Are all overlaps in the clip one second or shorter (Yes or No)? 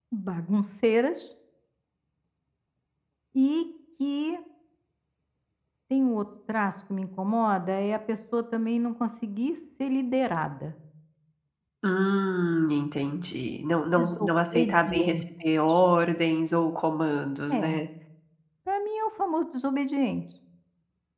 No